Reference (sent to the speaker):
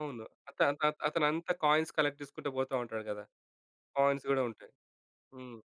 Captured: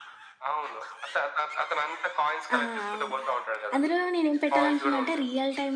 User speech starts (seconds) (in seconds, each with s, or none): 2.6 s